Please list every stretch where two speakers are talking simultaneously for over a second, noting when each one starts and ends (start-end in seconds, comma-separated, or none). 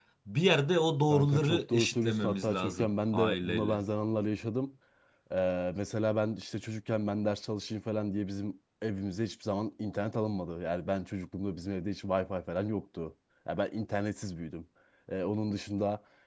1.1-3.8